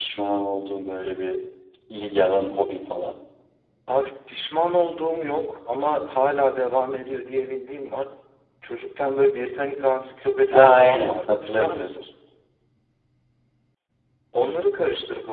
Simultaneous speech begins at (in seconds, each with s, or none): 10.5 s